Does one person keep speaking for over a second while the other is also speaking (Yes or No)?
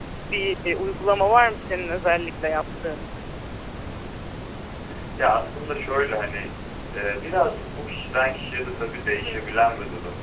No